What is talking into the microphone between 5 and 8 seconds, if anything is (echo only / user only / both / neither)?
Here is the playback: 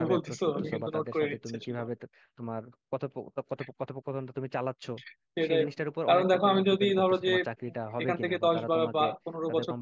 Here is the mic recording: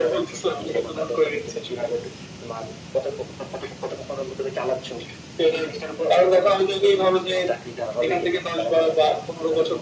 echo only